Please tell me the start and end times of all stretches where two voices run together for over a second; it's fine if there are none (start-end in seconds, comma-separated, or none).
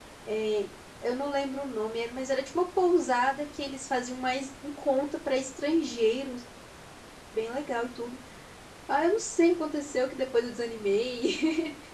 none